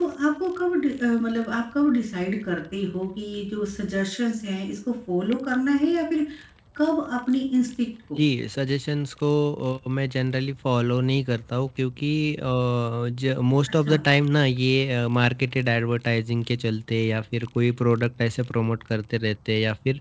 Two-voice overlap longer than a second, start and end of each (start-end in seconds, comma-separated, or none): none